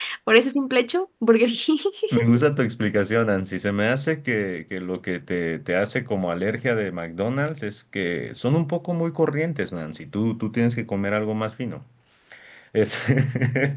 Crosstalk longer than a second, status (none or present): none